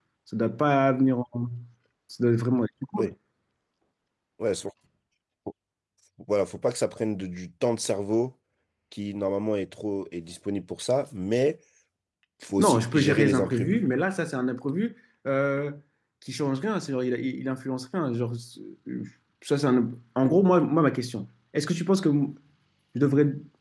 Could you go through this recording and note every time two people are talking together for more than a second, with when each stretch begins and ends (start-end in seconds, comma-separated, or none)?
12.6-13.8